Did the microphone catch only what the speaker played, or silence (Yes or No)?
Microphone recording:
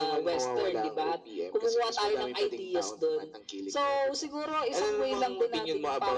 Yes